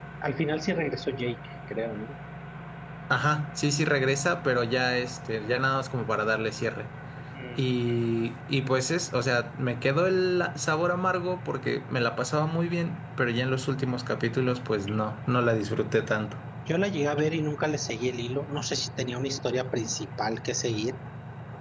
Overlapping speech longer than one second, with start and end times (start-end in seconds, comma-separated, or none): none